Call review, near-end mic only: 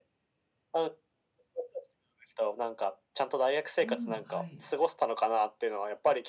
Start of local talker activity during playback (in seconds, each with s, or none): 3.8 s